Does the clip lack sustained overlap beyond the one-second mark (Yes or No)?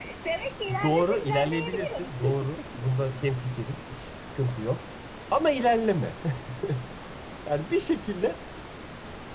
No